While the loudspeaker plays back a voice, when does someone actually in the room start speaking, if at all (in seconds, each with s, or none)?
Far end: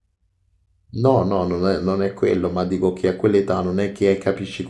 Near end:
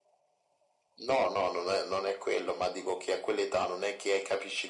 none